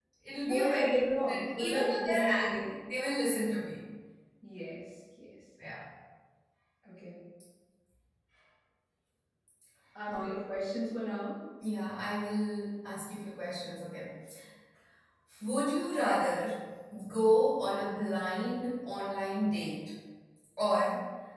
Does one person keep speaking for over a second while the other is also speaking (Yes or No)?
Yes